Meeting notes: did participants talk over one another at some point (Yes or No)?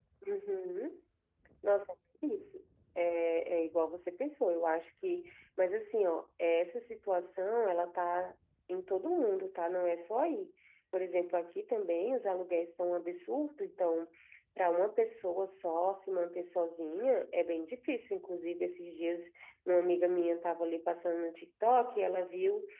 No